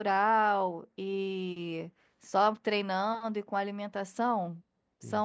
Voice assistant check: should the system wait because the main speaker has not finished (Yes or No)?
Yes